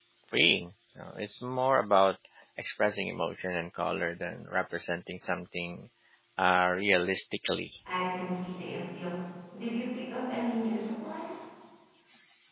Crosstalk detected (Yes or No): No